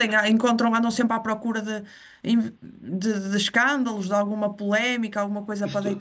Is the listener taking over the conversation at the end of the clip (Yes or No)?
Yes